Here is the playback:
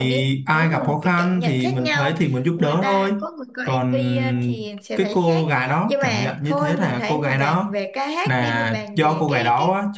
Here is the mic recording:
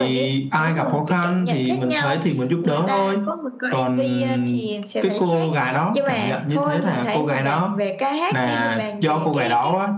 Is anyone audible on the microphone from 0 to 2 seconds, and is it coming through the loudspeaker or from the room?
echo only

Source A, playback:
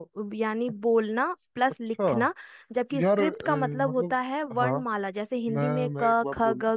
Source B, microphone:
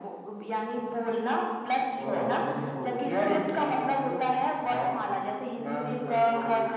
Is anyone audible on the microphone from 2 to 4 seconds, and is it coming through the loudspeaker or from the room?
both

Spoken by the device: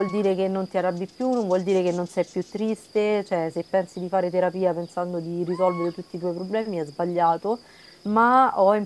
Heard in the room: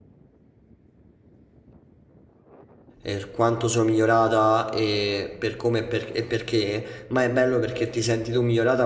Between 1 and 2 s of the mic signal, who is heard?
neither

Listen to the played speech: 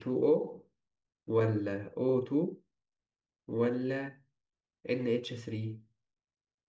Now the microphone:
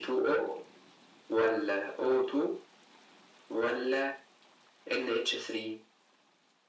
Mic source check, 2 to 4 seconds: echo only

